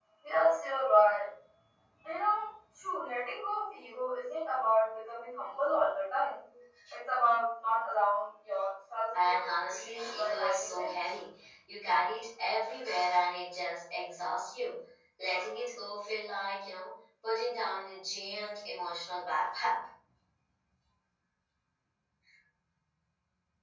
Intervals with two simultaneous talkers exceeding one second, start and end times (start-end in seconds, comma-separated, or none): 9.1-11.0